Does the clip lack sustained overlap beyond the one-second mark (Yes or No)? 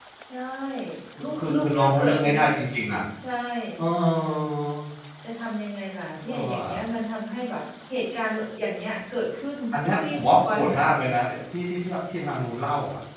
No